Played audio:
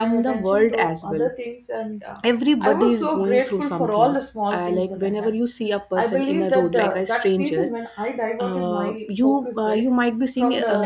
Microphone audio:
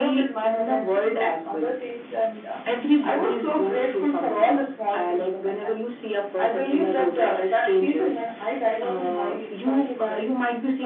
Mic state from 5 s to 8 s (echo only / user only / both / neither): echo only